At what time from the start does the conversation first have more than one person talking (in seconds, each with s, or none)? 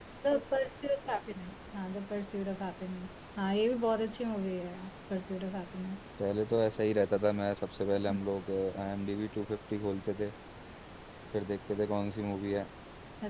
none